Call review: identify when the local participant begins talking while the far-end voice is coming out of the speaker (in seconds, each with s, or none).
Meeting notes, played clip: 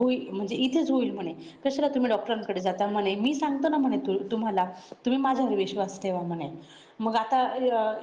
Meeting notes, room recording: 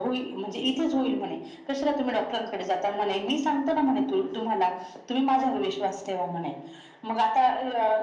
none